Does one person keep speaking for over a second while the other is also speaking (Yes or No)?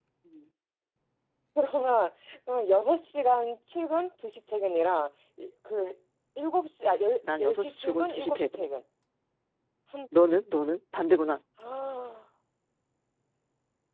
Yes